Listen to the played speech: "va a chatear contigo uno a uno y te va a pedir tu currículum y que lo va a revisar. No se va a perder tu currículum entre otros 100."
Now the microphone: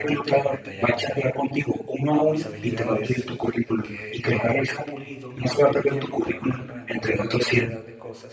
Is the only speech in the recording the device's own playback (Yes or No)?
No